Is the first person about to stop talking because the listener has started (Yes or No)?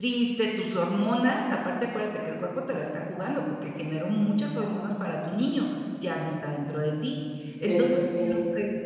No